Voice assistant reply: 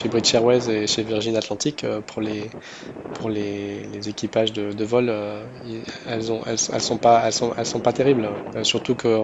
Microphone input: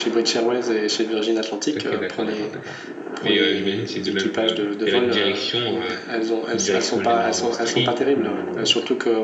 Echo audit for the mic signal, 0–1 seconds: echo only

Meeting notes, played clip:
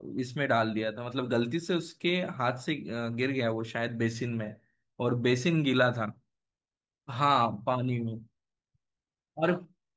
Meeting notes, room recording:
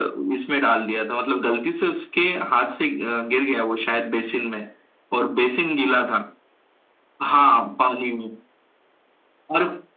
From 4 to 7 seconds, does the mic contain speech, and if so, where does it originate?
echo only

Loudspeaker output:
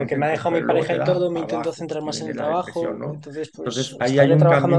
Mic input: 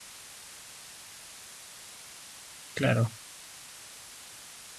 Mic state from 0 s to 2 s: neither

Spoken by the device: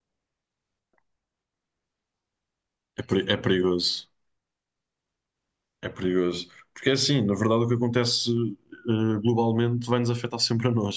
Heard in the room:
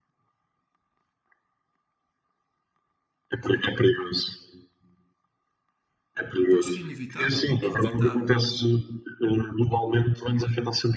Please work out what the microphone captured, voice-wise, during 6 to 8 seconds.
both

